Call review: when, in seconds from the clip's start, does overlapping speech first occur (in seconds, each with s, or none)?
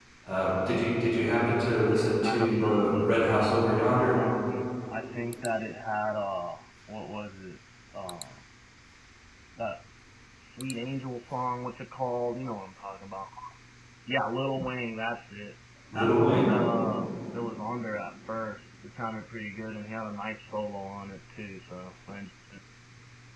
2.2 s